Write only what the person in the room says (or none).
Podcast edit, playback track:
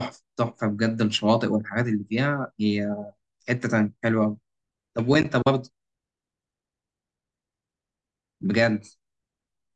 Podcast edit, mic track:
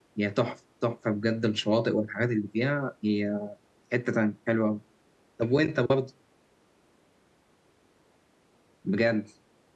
none